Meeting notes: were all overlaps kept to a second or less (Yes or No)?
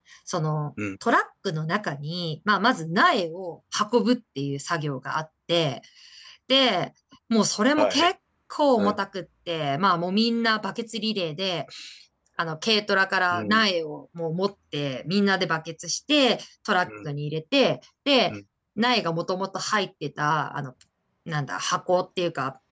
Yes